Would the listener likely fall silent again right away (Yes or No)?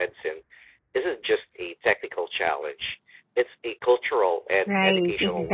No